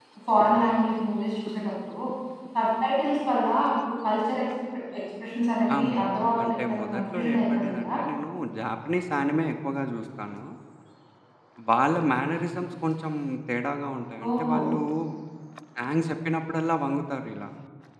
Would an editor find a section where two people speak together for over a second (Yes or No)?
Yes